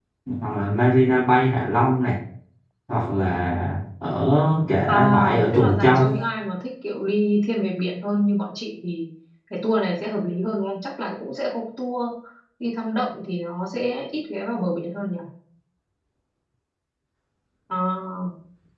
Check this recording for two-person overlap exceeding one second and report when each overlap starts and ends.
4.9-6.1

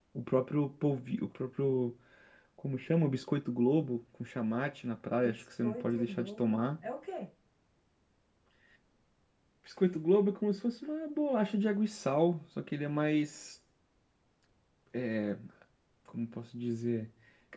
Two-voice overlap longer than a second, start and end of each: 5.2-6.6

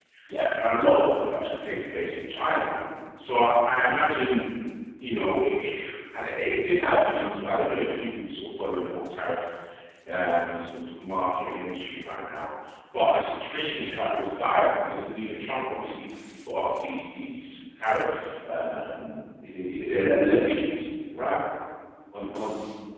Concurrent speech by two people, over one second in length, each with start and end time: none

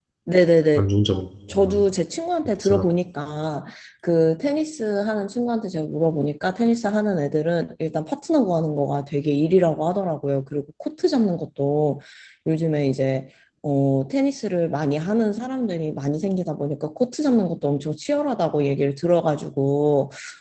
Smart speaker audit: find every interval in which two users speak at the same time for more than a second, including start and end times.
none

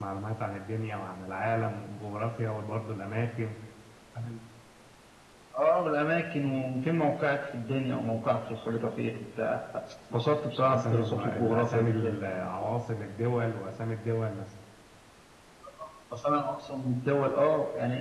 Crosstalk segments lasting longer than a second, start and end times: 10.6-12.2

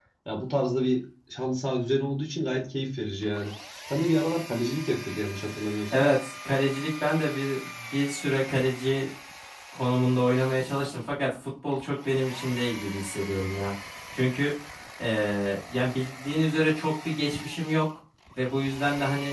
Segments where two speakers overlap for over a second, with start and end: none

